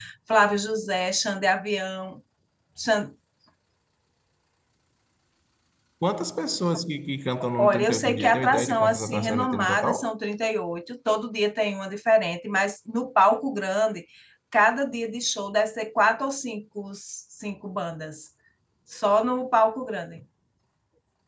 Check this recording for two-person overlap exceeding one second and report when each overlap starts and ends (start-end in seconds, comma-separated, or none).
7.6-10.1